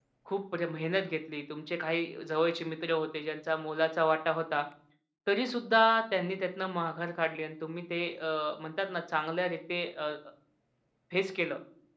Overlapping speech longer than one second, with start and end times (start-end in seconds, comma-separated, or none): none